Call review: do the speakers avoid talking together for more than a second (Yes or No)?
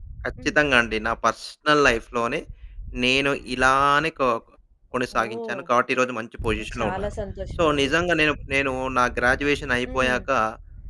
Yes